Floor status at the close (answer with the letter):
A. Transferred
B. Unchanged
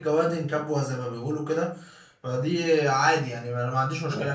A